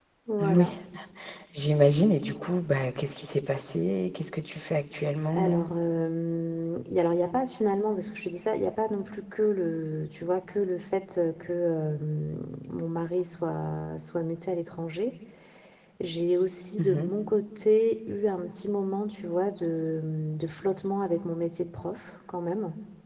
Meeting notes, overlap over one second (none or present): none